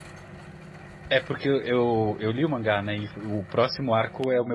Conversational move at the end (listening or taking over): listening